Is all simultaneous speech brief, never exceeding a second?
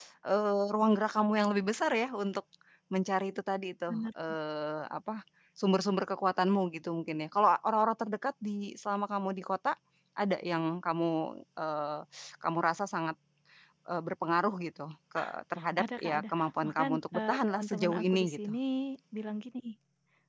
No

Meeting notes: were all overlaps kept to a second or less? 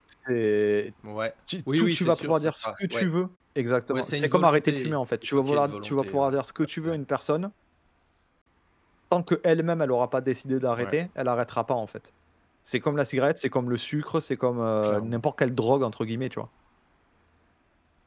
No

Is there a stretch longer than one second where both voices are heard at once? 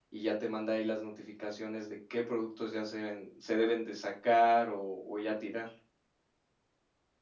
No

